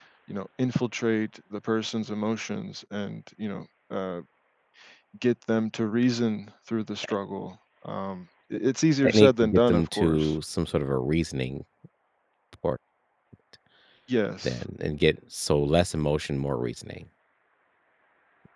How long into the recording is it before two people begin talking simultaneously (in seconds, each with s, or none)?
9.0 s